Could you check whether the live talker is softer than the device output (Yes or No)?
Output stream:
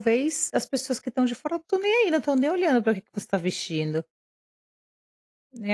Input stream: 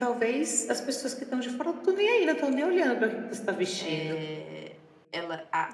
Yes